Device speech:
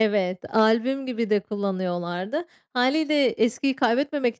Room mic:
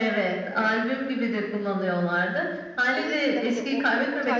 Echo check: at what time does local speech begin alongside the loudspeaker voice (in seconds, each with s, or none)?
3.0 s